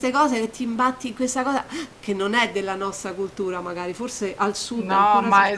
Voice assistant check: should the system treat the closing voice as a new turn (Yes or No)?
Yes